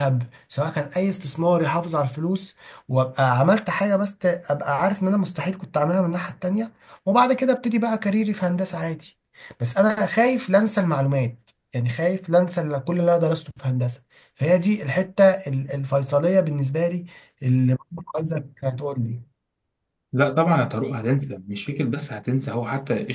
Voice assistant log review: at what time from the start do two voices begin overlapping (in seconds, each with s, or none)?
none